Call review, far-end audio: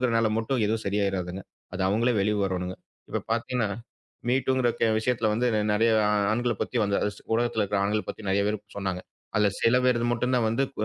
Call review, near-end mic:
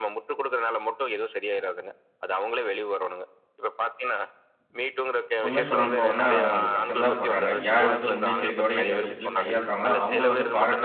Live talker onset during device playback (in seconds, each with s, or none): 5.5 s